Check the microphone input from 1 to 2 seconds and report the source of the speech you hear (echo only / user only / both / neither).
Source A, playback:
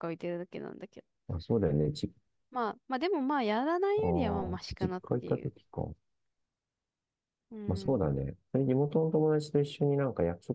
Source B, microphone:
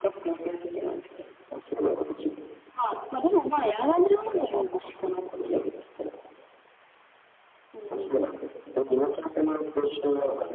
echo only